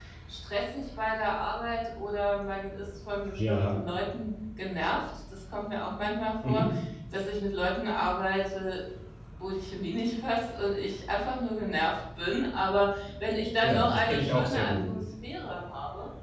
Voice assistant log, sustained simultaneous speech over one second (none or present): present